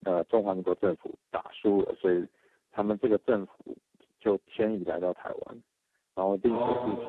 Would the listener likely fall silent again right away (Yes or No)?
Yes